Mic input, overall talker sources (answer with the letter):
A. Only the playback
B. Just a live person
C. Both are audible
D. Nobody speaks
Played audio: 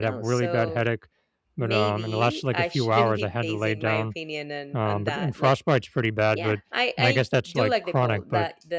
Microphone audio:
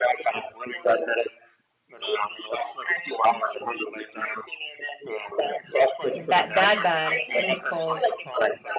C